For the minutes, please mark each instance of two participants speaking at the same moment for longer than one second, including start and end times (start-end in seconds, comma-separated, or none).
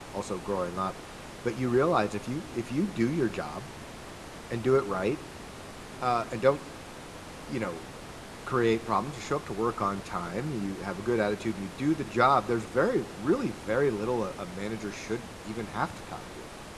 none